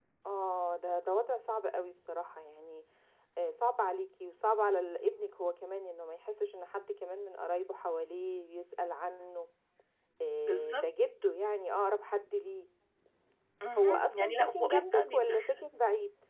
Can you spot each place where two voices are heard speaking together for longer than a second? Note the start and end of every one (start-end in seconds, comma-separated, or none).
13.8-15.5